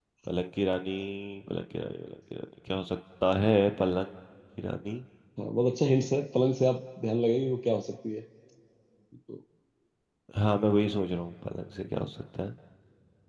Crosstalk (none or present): none